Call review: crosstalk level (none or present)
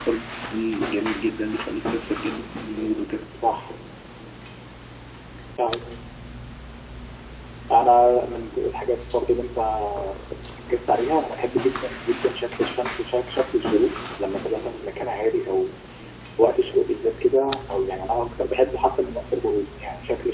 none